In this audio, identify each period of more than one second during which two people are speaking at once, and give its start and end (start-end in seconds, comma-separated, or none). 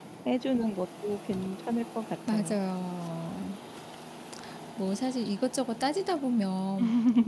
none